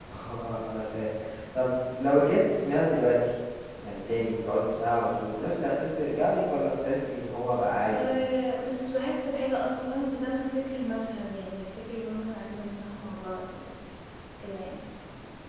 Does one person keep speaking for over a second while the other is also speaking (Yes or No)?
No